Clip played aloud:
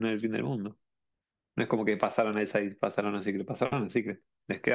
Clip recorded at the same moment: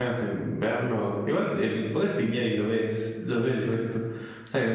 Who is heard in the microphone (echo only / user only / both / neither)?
user only